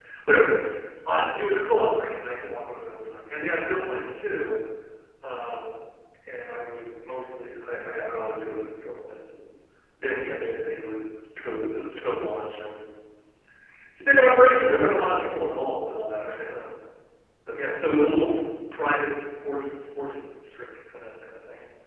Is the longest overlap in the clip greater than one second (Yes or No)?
No